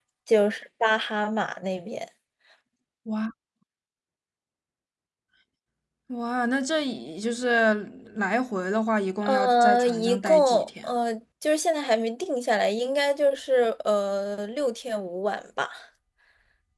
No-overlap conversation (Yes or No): No